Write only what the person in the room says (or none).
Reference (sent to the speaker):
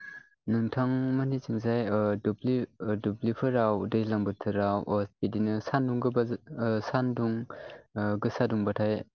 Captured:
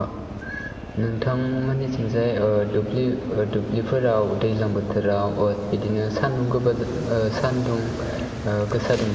none